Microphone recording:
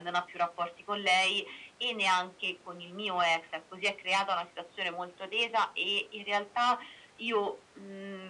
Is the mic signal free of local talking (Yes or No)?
Yes